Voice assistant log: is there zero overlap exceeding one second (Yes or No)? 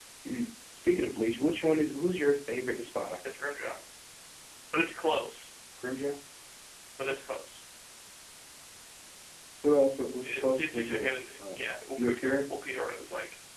No